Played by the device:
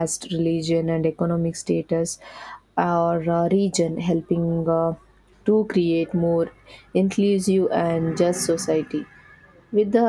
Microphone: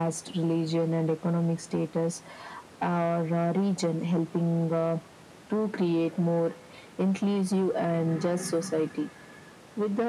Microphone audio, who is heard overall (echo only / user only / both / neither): echo only